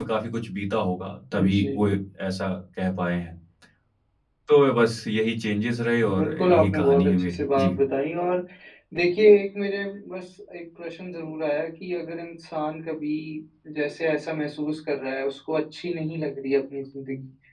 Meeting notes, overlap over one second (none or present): present